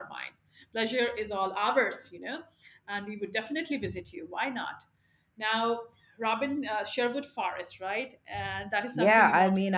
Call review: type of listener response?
taking over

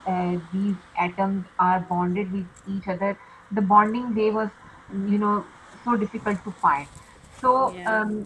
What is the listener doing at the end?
listening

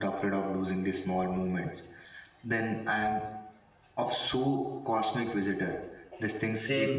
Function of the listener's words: taking over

